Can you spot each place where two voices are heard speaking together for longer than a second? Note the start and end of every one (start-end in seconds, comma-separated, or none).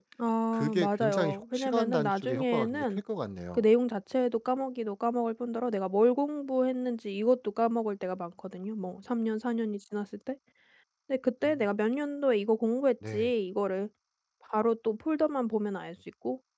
0.5-3.0